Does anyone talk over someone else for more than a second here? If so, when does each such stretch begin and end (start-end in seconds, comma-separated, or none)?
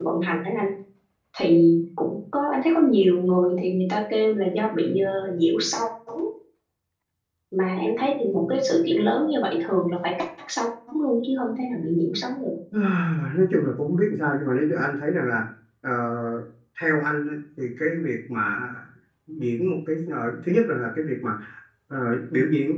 none